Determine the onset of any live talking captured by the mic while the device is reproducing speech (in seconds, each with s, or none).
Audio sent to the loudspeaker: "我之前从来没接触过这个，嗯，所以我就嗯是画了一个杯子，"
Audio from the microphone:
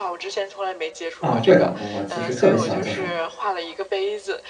1.2 s